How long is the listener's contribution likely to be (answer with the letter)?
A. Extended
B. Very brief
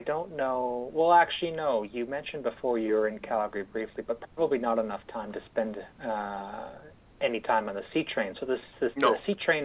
B